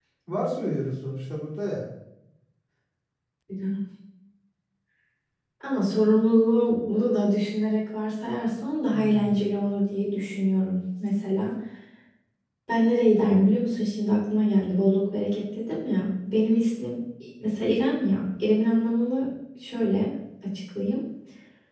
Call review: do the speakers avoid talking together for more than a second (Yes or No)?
Yes